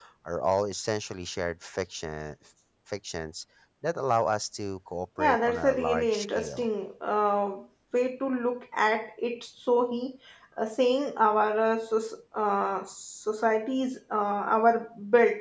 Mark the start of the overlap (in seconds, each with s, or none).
5.2 s